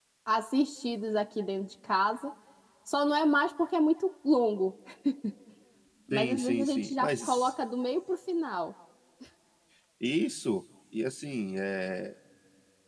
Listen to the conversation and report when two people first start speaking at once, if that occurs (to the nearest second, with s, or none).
6 s